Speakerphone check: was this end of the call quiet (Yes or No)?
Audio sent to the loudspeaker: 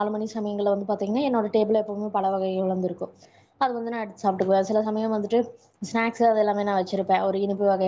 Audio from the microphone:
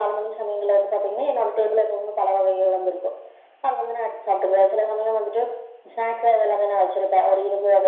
Yes